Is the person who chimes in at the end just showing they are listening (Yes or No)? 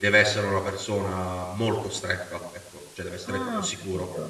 No